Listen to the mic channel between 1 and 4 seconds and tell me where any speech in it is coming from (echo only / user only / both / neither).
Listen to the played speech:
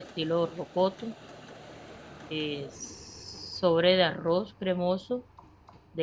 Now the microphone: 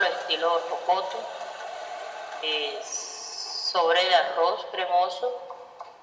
echo only